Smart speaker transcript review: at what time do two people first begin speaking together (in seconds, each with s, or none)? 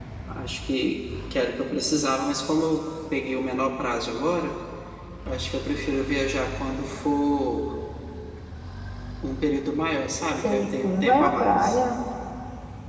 10.4 s